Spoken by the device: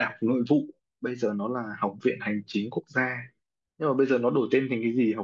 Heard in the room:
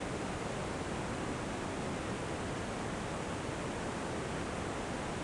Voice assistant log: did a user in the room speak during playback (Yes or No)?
No